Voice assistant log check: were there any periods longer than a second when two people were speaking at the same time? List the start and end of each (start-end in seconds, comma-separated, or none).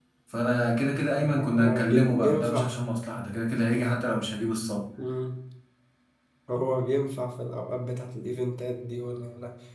1.3-2.8